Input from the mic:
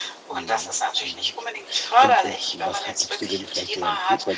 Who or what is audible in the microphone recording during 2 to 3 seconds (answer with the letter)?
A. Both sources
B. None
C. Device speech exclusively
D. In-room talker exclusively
A